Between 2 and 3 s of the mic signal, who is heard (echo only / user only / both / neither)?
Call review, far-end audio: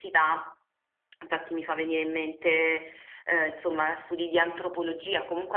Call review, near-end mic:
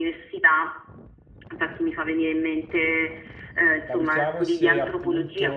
echo only